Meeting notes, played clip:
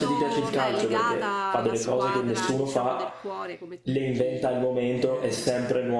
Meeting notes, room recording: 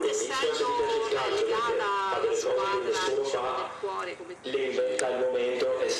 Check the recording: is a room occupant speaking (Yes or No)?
No